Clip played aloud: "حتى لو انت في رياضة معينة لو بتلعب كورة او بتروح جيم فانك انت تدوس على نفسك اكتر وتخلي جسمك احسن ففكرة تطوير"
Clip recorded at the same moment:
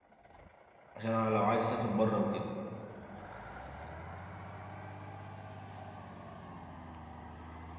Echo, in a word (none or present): none